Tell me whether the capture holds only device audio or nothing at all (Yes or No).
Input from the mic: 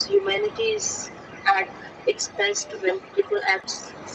Yes